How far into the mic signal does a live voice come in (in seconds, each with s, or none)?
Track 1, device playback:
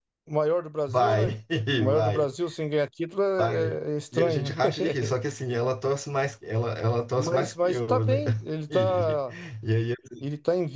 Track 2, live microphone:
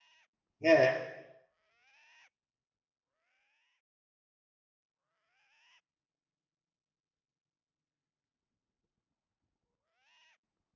0.6 s